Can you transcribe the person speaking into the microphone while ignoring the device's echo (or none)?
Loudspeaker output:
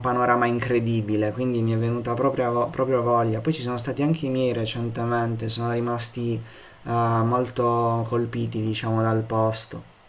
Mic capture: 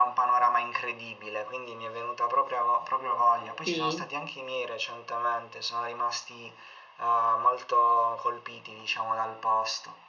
Sì,